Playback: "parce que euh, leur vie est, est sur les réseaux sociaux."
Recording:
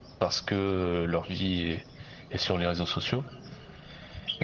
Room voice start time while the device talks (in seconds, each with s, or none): none